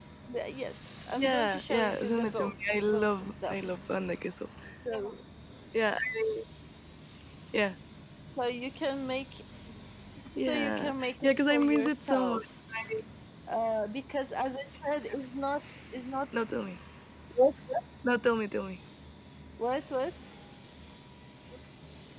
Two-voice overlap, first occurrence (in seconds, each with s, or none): 1.2 s